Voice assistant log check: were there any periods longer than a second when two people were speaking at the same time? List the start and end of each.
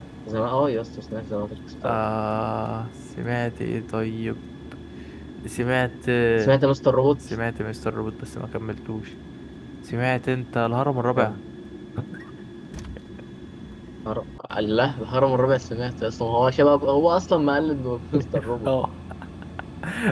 none

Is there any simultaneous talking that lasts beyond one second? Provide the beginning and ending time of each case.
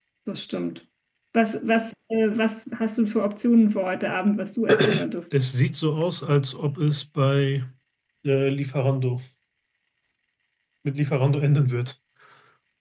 none

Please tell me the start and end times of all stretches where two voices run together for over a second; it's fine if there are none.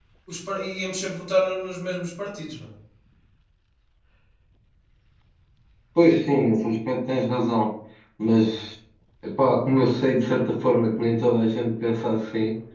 none

